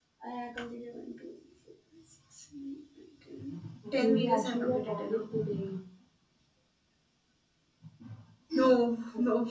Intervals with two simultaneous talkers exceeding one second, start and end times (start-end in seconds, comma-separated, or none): 3.9-5.2